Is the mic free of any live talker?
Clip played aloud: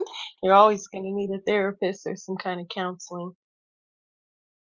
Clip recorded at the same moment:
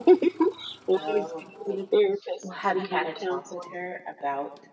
No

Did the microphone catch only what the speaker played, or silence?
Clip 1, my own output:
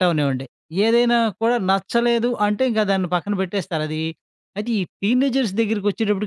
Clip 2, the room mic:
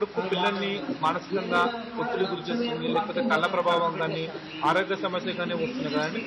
No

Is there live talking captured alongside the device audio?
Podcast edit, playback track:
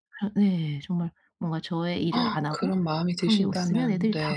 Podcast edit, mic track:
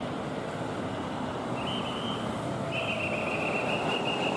No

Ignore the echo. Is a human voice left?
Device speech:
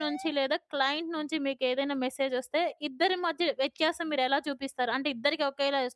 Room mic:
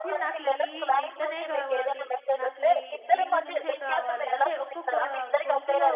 Yes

